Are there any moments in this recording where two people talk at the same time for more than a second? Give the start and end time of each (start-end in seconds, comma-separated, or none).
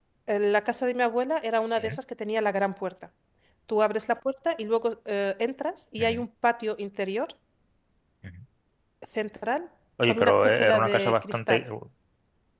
10.1-11.6